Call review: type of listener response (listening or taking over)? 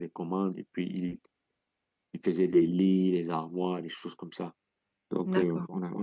listening